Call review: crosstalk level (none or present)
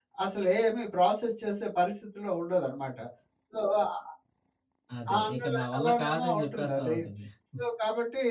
present